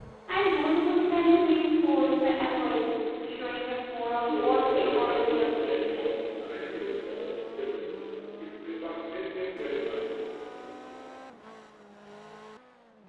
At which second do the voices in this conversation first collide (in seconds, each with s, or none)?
4.1 s